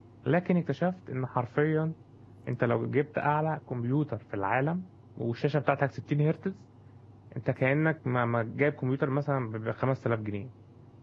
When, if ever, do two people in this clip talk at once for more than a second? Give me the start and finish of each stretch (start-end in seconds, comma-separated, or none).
none